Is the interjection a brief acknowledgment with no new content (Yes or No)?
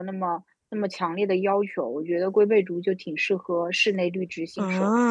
No